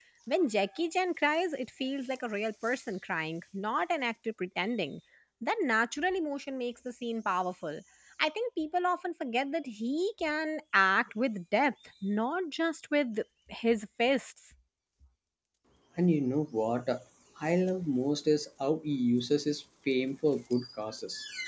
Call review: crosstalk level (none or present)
none